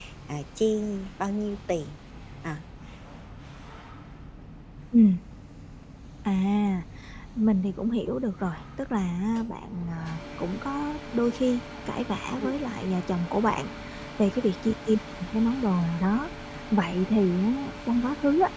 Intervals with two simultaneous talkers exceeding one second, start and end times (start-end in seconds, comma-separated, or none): none